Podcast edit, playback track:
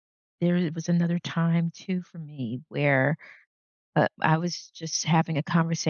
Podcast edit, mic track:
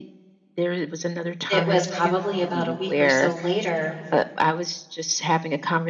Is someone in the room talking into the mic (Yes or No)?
Yes